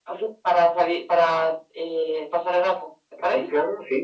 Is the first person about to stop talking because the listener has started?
Yes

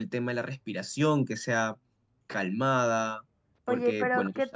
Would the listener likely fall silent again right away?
No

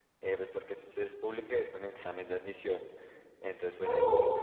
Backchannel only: Yes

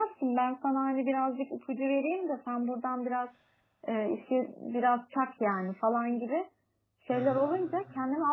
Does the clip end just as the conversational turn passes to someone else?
No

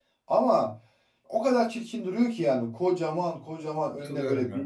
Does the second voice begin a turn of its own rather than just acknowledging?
No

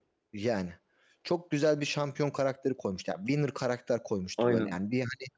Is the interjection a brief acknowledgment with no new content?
Yes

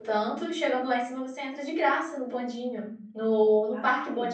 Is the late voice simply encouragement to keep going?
Yes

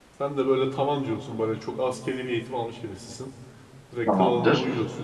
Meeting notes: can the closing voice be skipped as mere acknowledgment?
Yes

